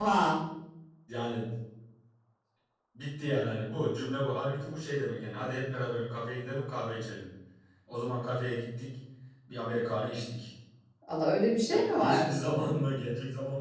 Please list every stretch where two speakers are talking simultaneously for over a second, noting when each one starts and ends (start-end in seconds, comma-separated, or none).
none